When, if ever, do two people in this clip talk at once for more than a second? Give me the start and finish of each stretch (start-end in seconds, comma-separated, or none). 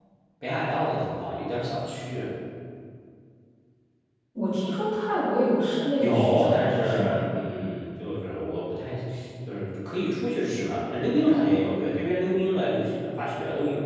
6.0-7.2